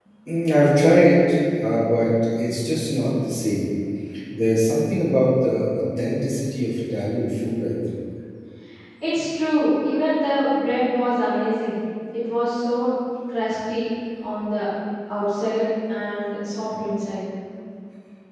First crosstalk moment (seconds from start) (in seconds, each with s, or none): none